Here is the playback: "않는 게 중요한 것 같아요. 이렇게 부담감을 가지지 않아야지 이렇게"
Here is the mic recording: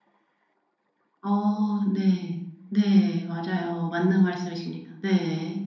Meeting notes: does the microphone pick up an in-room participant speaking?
Yes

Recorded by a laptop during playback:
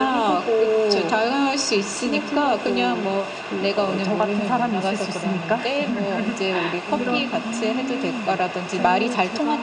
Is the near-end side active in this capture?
Yes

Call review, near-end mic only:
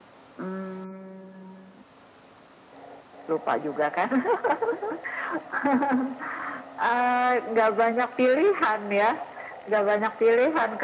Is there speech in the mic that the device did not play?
No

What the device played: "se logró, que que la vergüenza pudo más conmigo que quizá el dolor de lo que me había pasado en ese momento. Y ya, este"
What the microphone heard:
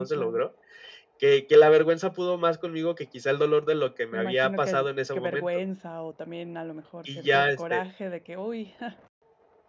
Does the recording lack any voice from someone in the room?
No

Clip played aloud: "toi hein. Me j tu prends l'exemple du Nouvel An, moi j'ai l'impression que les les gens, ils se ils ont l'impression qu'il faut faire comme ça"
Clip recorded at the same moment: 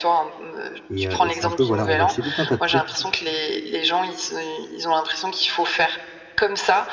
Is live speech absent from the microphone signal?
No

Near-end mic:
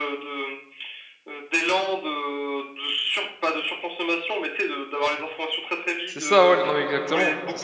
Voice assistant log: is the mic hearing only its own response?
No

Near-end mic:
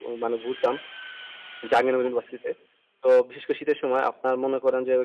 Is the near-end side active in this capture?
Yes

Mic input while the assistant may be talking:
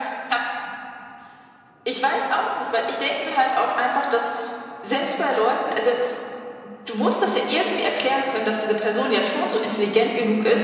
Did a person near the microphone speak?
No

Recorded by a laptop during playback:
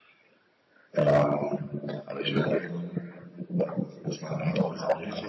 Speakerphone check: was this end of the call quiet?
No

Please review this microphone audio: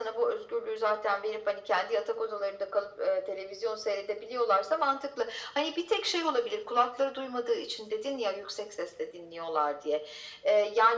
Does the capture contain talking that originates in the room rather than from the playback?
No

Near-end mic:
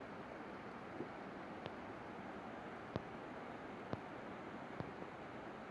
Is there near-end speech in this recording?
No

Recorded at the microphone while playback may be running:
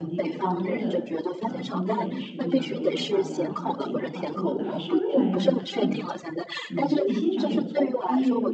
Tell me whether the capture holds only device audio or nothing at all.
No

